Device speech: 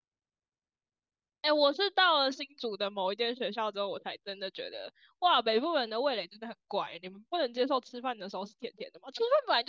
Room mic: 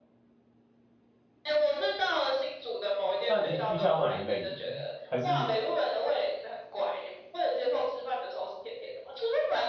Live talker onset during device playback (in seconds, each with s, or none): 3.2 s